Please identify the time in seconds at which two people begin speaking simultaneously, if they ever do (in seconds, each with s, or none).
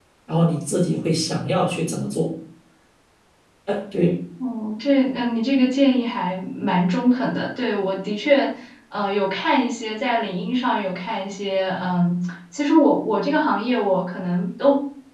none